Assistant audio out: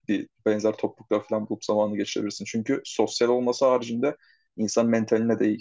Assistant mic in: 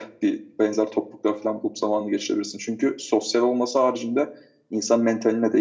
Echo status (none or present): present